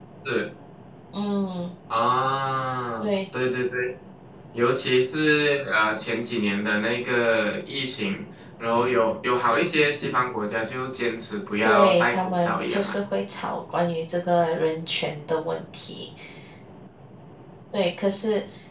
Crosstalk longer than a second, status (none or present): present